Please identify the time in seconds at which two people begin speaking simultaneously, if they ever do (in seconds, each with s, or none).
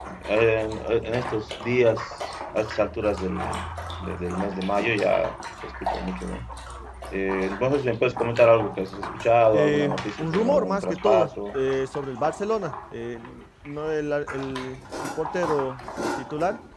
9.5 s